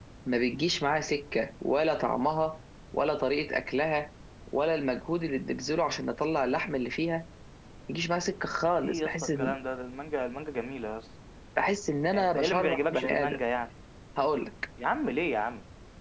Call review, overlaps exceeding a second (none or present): present